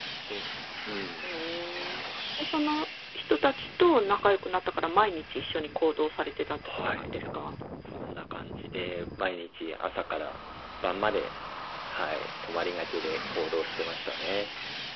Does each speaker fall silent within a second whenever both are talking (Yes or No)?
Yes